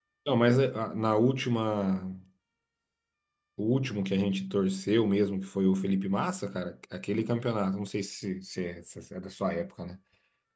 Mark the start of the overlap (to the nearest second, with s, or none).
none